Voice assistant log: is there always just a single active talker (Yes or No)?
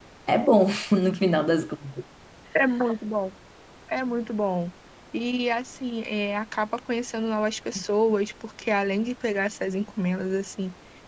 Yes